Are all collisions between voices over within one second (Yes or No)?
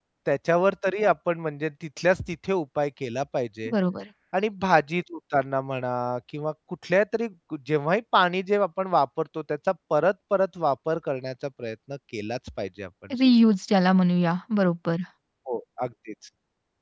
Yes